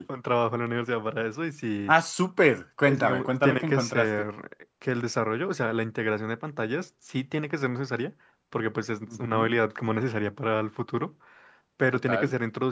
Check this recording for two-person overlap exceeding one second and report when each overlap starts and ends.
2.9-4.3

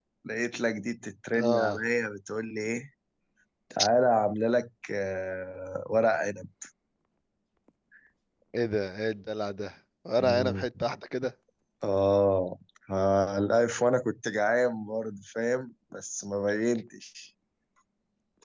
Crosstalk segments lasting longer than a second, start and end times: none

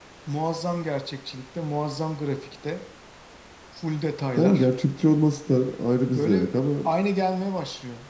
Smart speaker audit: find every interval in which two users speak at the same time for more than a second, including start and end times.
none

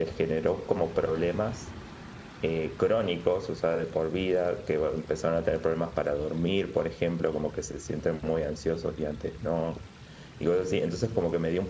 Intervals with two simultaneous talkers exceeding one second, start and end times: none

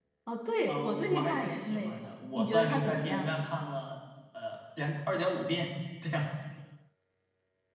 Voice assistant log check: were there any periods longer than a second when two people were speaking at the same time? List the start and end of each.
0.7-3.3

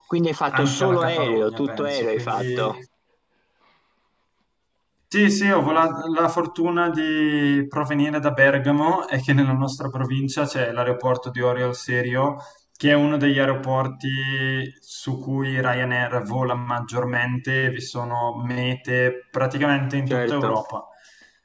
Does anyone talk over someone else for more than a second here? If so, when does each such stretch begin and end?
0.5-2.8

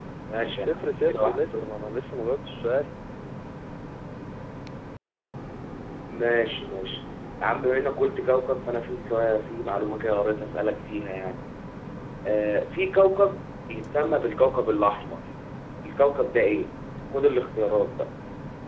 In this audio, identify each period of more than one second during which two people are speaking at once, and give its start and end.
0.6-2.0

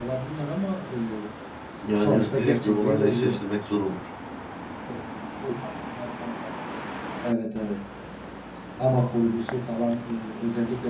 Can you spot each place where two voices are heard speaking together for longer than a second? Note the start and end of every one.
2.0-3.4

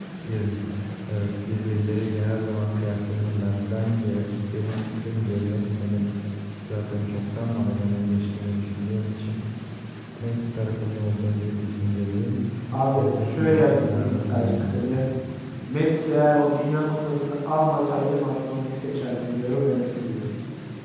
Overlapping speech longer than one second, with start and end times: 13.0-14.9

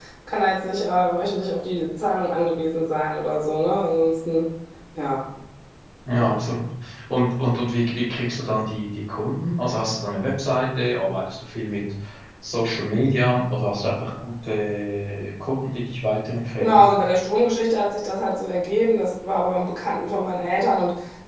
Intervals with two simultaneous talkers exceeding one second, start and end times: none

